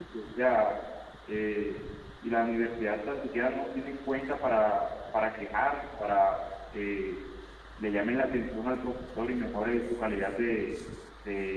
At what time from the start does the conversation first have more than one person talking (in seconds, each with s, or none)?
none